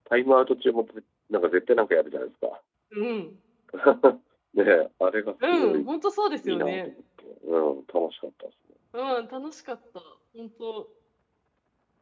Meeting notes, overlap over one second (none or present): none